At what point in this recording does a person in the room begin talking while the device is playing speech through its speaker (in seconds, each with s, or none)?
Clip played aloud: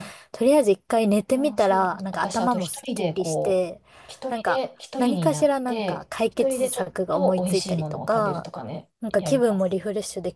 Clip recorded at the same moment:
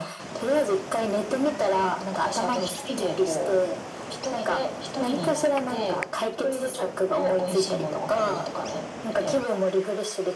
none